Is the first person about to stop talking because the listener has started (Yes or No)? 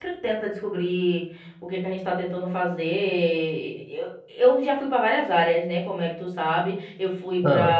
No